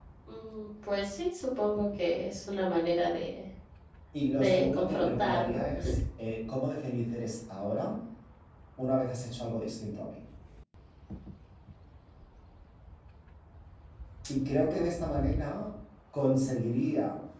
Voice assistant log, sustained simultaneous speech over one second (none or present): present